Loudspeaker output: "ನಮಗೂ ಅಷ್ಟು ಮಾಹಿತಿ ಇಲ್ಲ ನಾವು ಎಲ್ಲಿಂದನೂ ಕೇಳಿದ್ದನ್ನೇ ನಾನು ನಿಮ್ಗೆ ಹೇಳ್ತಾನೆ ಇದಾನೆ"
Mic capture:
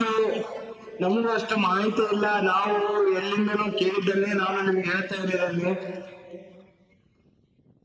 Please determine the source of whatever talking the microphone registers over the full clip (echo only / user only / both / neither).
echo only